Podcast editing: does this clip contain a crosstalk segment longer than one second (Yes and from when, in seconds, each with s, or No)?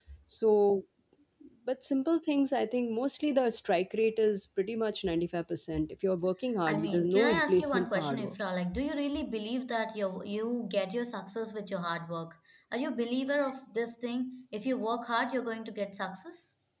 Yes, from 6.7 s